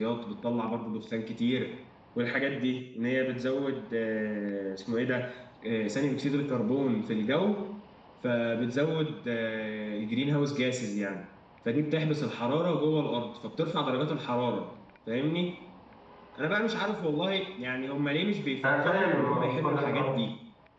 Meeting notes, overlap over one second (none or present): present